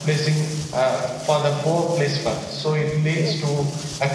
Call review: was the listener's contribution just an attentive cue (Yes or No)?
Yes